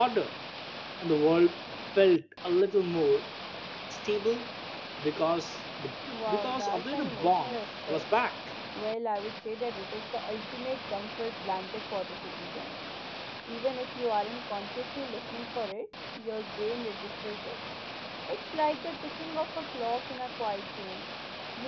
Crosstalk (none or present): present